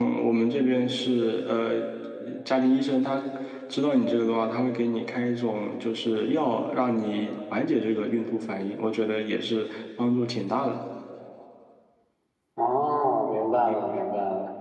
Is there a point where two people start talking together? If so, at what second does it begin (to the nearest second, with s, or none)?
none